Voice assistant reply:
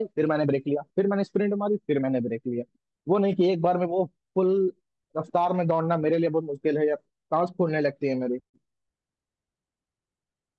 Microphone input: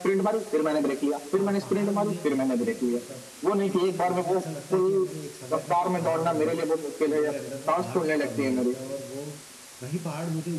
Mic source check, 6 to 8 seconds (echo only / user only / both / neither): both